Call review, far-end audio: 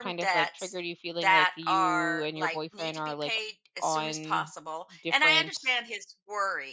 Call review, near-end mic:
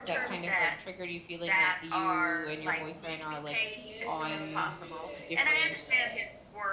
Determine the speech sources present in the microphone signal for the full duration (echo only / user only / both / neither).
both